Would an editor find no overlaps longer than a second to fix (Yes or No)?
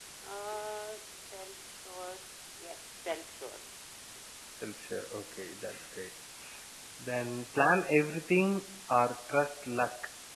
Yes